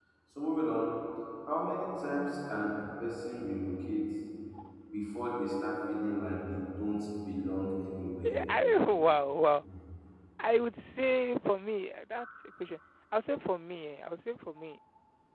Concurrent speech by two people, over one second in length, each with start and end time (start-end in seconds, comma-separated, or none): none